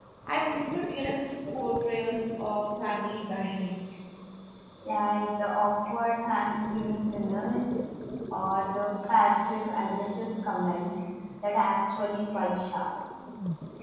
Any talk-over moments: No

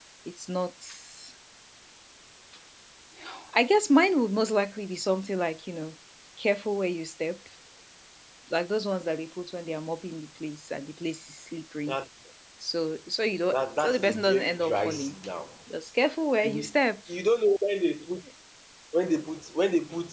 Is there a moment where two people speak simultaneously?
Yes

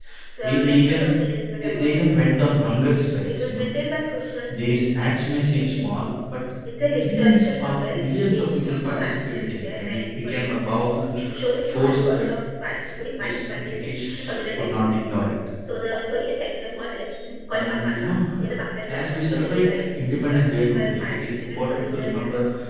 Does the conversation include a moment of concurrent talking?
Yes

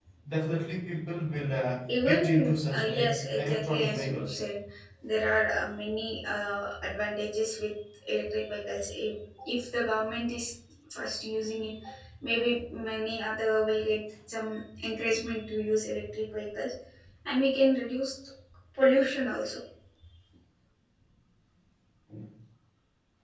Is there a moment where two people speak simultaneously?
Yes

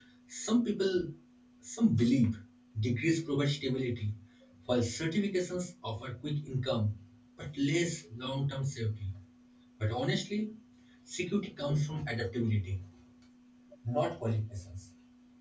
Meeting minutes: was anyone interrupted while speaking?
No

